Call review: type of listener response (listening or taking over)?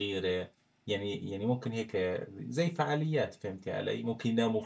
taking over